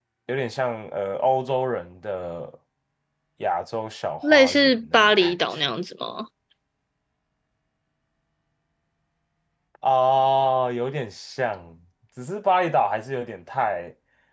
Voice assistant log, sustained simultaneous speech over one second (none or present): present